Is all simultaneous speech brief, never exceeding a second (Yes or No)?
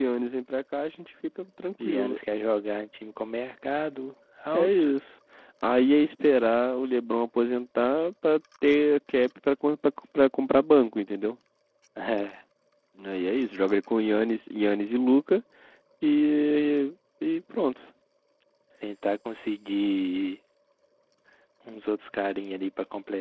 Yes